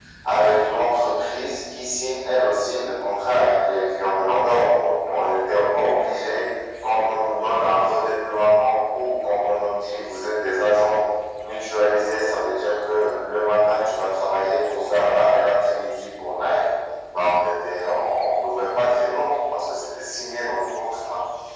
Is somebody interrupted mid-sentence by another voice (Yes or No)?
No